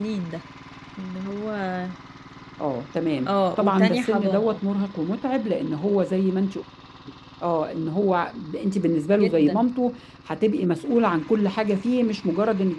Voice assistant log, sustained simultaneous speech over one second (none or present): present